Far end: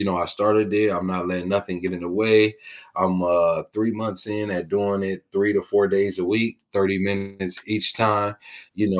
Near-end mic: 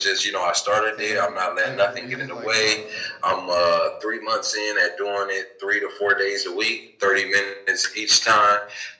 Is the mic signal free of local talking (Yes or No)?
No